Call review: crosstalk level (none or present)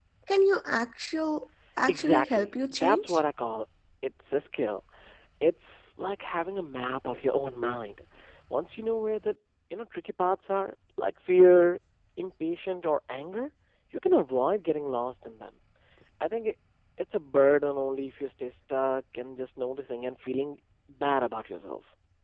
present